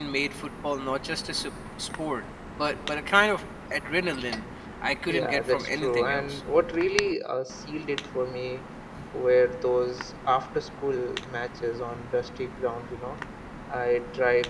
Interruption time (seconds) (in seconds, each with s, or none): 5.1 s